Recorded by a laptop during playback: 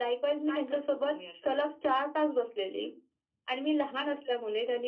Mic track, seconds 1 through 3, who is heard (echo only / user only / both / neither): echo only